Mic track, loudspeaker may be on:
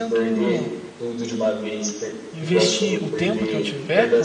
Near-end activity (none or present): present